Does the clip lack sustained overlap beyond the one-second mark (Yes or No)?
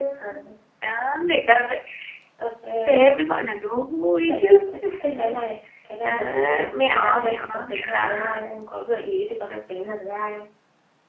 No